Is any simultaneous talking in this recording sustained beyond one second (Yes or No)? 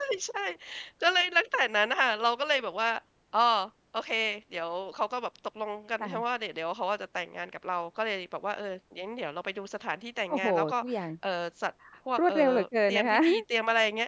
No